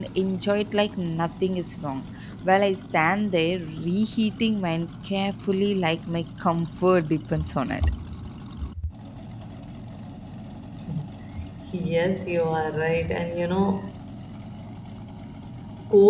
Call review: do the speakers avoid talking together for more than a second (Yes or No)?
Yes